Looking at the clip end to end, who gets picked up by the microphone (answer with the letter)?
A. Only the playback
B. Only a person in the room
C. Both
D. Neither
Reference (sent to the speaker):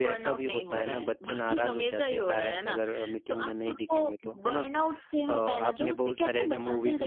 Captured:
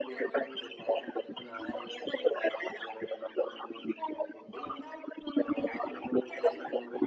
A